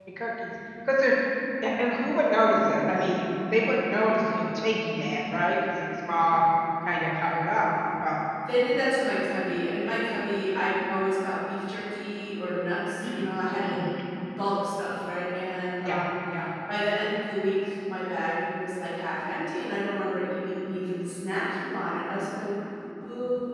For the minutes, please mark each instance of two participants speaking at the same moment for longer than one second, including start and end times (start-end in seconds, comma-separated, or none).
none